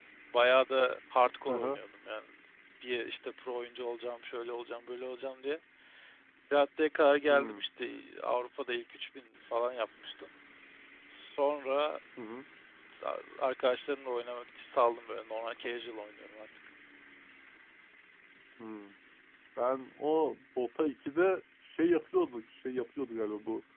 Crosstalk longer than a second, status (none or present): none